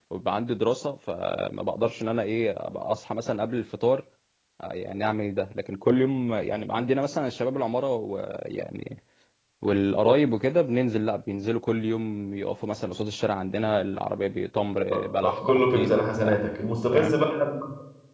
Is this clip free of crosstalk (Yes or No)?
No